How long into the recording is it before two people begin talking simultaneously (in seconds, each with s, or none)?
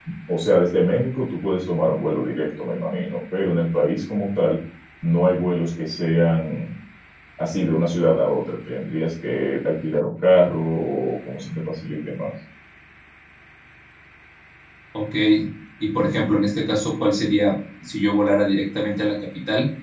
none